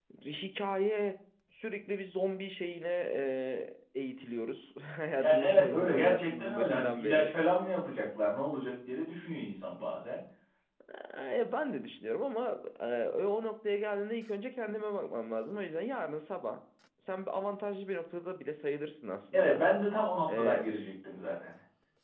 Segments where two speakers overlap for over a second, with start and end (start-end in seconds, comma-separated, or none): 5.2-7.3